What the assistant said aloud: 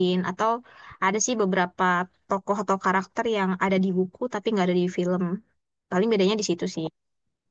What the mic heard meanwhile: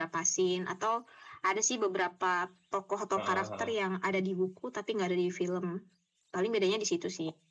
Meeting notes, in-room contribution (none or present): present